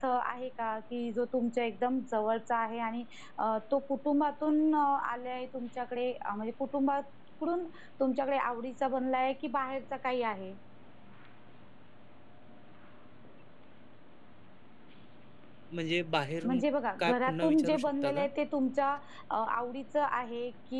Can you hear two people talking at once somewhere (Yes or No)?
Yes